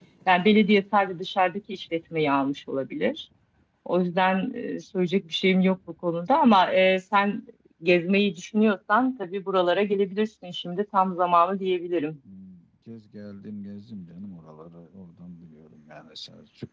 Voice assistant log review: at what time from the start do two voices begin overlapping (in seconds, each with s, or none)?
none